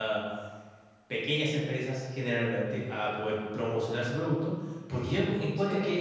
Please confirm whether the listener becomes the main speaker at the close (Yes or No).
No